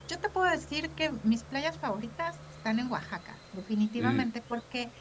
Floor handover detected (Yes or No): No